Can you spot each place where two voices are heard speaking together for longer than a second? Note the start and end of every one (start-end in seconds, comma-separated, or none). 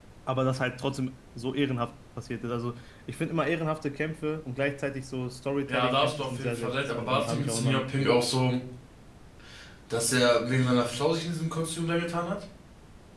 5.7-8.1